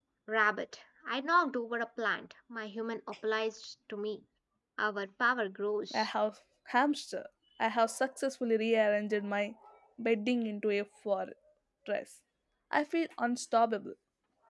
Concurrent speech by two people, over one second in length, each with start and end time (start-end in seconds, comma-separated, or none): none